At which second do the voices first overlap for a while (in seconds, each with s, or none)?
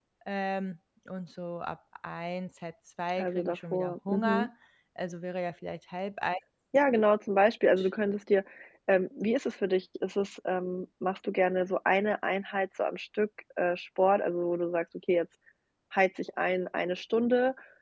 3.2 s